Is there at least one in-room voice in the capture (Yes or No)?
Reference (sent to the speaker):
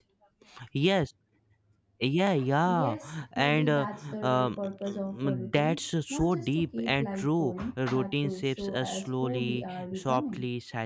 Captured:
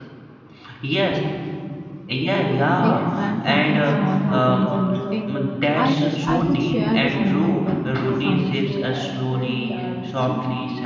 Yes